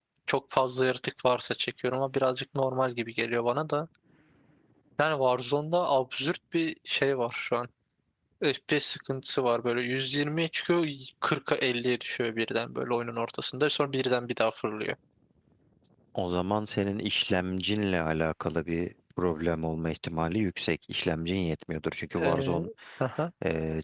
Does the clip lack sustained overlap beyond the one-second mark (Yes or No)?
Yes